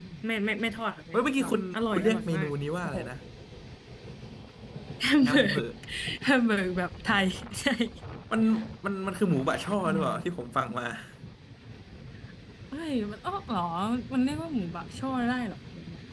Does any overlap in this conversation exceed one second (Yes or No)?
Yes